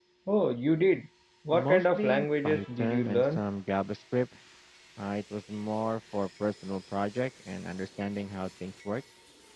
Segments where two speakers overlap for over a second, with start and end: 1.5-3.4

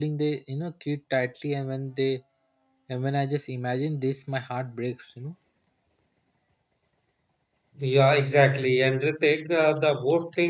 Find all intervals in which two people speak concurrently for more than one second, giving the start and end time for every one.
none

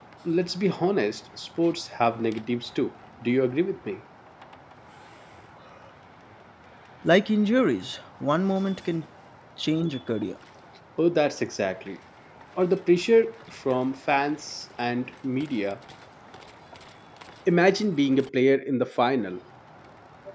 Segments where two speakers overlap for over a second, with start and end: none

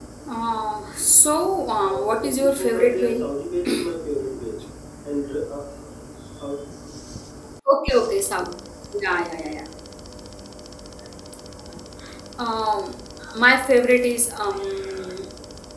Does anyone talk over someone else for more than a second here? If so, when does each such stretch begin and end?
1.8-3.2

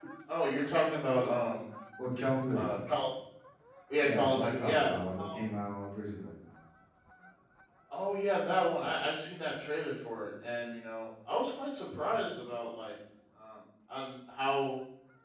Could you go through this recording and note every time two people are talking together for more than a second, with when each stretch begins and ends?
4.0-5.4

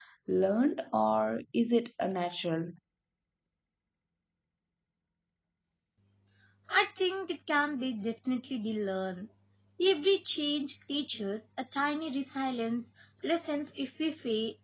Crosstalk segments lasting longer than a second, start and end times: none

